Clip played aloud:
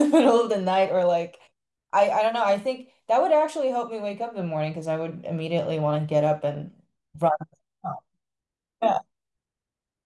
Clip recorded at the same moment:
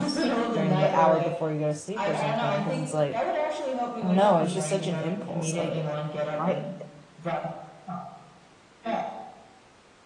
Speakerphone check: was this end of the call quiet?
No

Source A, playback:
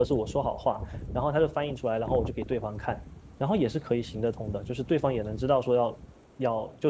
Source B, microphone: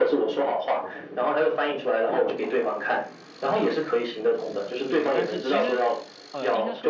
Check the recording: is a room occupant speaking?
Yes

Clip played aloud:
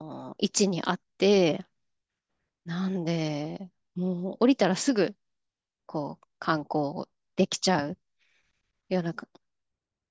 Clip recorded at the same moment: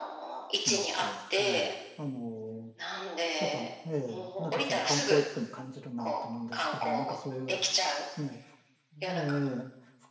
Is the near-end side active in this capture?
Yes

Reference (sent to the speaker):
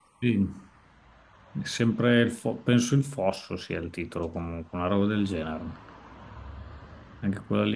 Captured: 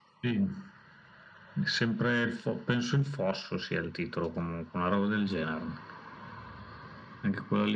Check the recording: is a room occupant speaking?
No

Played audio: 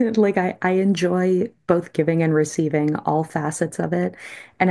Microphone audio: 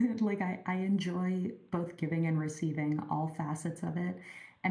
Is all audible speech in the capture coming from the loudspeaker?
Yes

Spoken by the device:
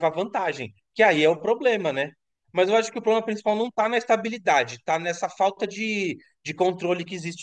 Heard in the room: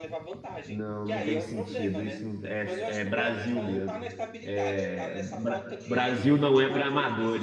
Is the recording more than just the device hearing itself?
Yes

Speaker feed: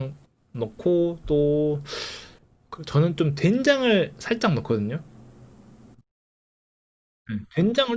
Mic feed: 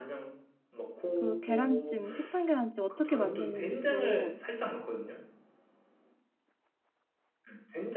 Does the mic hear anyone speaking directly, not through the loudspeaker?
Yes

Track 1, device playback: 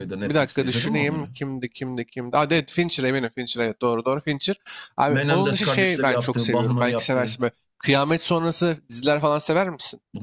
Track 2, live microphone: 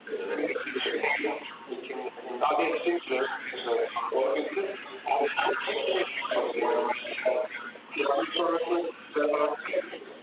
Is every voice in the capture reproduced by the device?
Yes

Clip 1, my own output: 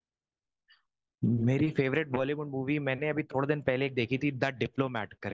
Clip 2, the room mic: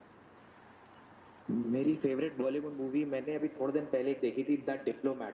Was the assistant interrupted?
No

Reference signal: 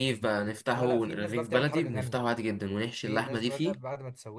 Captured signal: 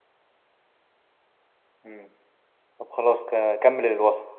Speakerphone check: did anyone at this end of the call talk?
Yes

